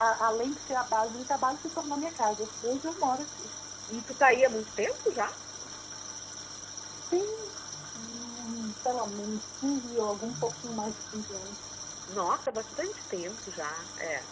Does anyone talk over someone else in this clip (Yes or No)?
No